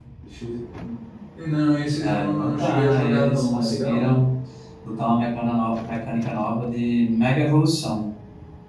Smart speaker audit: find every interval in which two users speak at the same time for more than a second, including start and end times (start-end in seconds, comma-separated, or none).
2.0-4.2